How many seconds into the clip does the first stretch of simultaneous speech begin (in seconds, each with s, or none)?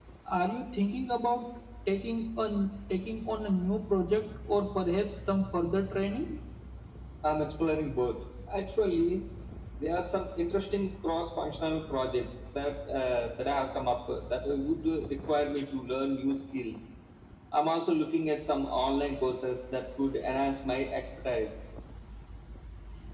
none